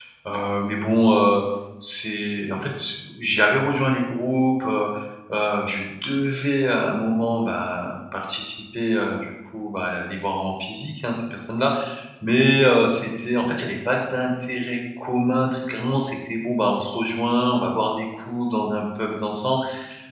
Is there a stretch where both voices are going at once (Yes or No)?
No